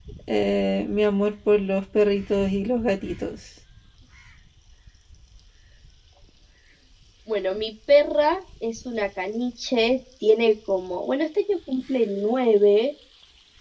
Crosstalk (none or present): none